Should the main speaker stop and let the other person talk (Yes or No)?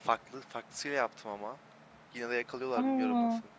No